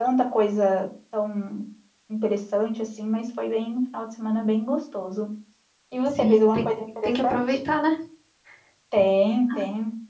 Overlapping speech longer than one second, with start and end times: 6.1-7.6

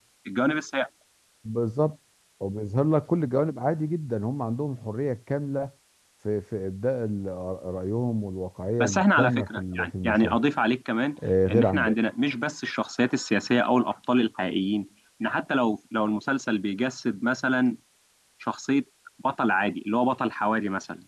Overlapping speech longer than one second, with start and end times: 8.8-10.4

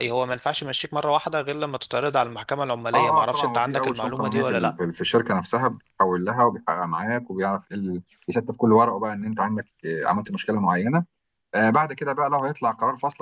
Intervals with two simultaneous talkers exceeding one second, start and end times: 2.9-4.7

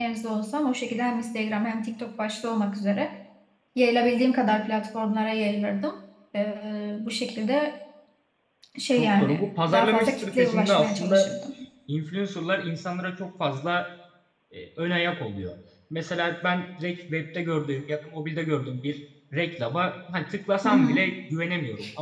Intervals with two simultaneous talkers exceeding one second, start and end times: 8.9-11.3

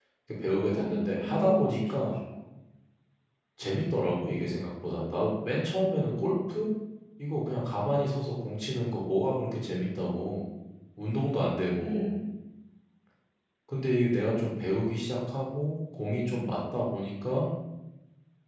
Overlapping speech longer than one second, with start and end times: 0.7-2.1

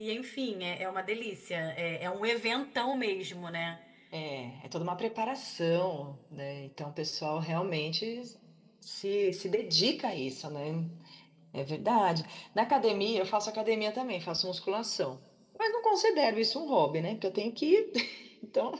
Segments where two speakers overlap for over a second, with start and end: none

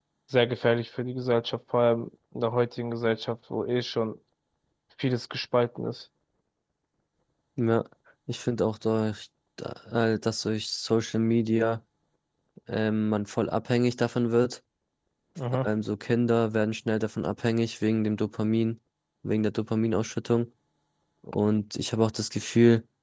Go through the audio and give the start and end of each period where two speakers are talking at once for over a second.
none

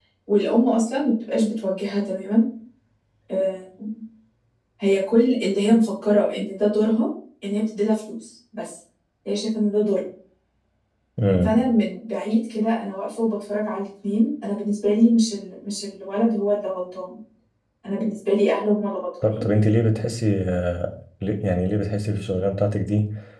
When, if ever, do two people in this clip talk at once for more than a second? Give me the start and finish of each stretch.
none

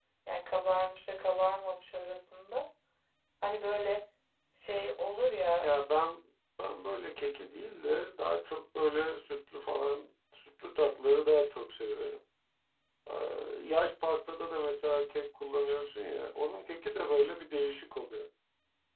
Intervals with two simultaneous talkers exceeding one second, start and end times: none

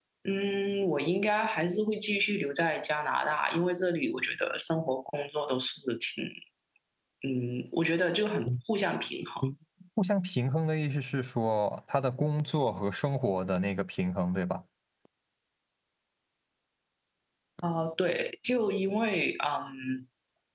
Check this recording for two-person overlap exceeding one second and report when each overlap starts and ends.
none

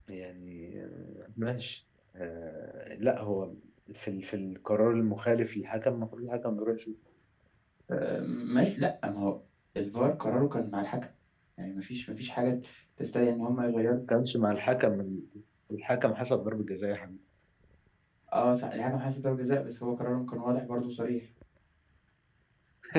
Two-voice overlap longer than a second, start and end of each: none

